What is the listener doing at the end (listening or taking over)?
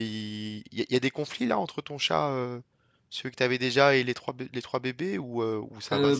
taking over